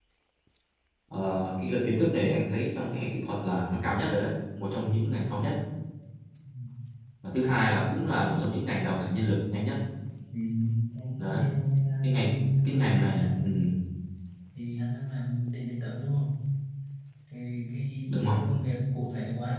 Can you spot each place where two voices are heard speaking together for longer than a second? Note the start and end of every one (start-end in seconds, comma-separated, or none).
12.0-13.4